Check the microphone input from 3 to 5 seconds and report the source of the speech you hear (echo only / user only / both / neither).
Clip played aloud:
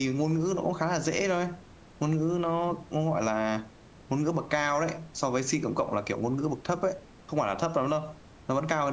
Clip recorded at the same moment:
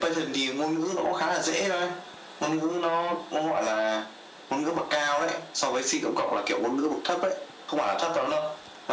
echo only